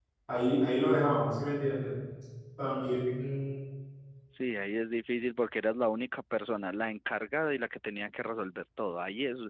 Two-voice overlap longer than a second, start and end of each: none

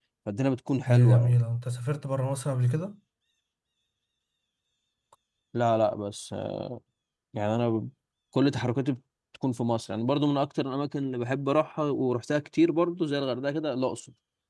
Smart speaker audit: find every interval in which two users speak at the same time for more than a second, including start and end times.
none

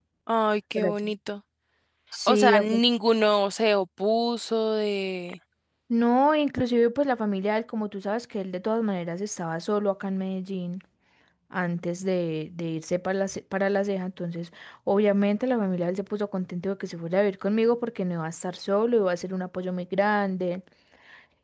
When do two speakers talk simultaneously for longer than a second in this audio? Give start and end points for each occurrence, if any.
none

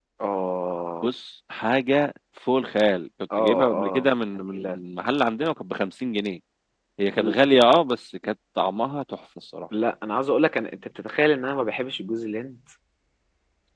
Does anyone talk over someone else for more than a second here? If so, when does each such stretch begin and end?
3.4-4.8

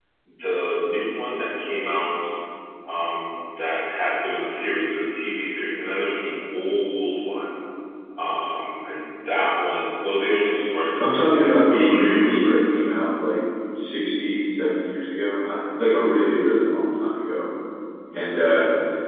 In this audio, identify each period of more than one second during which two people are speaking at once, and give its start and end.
11.0-12.8

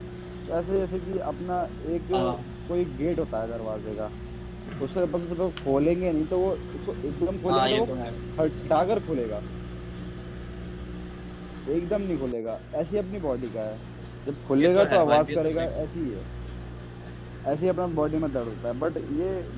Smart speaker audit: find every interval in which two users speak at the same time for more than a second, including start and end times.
14.6-15.8

